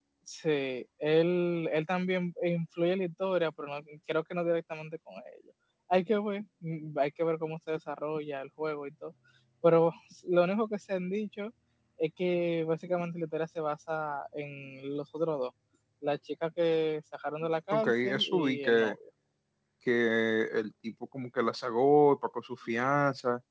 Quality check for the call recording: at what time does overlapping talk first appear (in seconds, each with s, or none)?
17.7 s